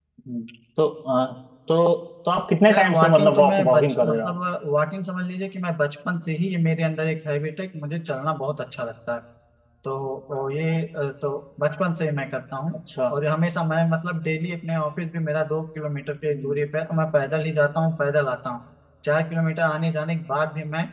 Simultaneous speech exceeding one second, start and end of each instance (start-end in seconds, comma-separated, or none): 2.7-4.3